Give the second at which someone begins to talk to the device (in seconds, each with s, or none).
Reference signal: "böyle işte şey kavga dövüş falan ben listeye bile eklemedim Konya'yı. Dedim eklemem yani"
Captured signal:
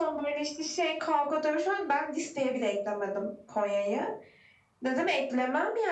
none